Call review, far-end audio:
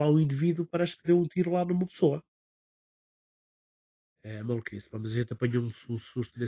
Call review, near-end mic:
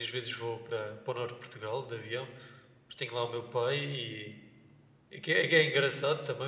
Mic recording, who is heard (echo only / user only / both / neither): user only